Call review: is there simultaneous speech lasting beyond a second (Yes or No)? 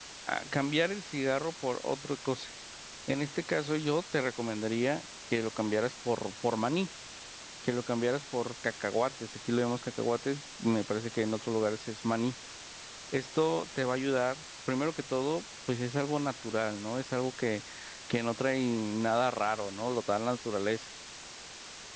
No